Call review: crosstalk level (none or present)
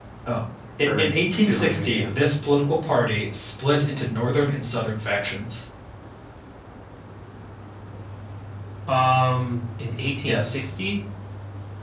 present